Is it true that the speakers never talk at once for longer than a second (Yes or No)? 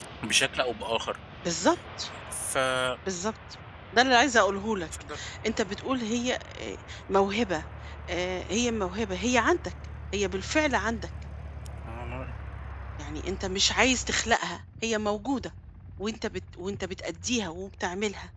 Yes